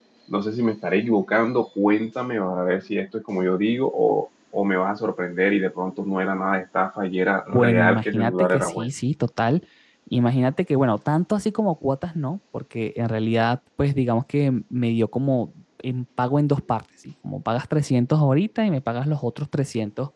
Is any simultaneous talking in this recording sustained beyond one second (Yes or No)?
Yes